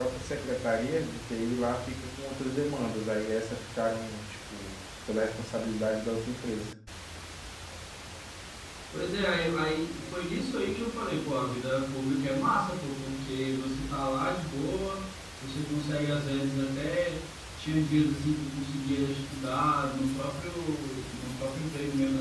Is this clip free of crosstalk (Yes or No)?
Yes